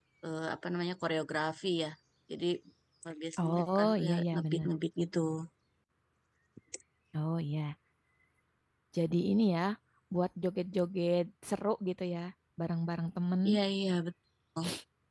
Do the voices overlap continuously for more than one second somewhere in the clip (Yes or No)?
Yes